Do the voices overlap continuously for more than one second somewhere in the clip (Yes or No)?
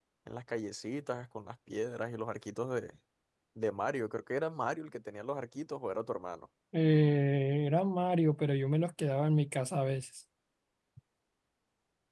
No